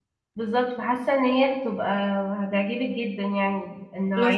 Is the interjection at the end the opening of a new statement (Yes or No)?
Yes